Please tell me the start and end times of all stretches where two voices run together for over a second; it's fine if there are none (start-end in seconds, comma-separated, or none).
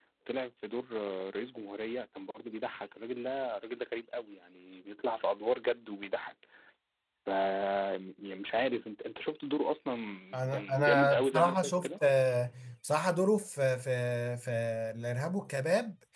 10.5-11.9